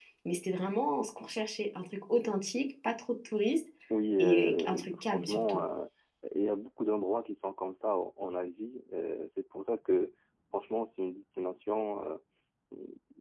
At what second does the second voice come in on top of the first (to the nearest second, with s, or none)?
4 s